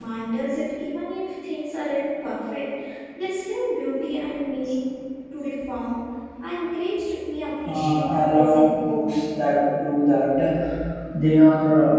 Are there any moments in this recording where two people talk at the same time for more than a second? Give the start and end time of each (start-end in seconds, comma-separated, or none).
7.7-9.1